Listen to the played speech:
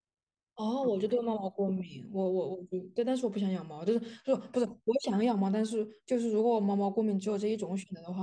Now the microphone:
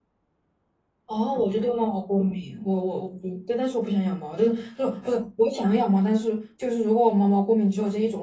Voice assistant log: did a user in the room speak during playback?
No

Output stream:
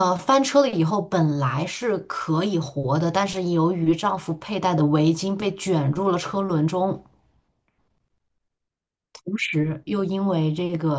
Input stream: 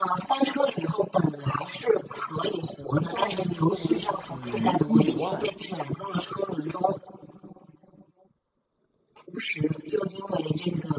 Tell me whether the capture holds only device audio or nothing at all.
No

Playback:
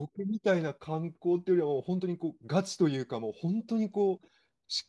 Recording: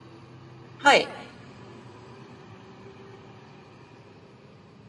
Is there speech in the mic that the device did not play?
Yes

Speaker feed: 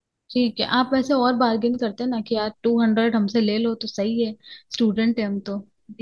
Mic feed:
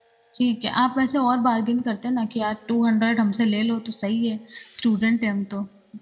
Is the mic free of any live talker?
Yes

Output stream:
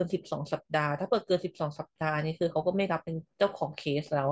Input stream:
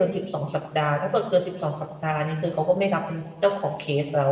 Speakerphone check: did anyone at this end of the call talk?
No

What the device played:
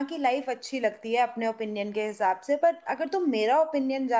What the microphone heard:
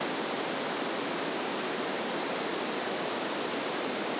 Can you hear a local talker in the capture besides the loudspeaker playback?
No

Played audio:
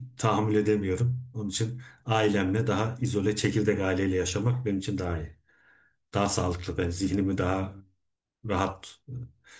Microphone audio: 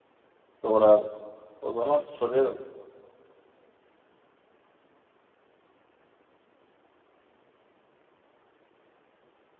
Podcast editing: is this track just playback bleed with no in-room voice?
No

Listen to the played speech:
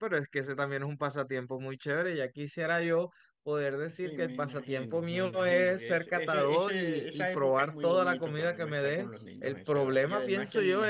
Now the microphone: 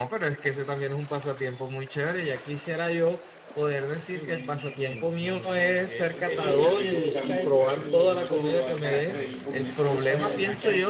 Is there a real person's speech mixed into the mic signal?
Yes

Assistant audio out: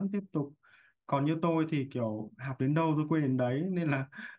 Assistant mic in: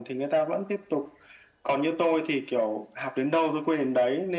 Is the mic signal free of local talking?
Yes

